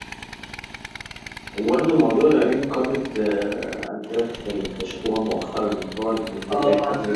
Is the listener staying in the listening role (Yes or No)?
No